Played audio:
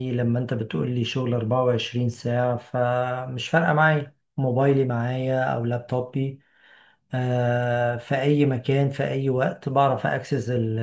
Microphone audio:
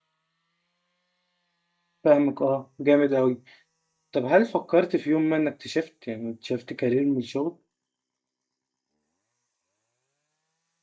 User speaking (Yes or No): Yes